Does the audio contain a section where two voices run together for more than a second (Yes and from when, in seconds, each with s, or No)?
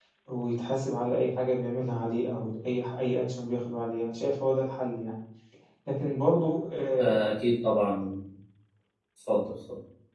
No